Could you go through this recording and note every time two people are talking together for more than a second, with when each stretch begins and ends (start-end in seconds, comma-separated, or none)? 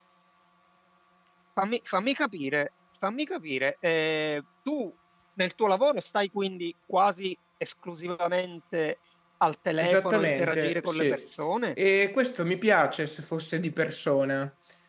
9.8-11.2